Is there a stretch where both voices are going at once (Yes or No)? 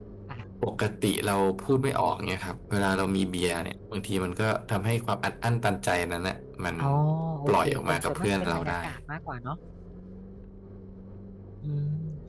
Yes